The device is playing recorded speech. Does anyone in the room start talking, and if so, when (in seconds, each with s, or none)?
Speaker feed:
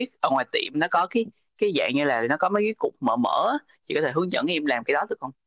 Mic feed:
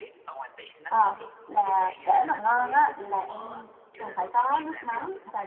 0.9 s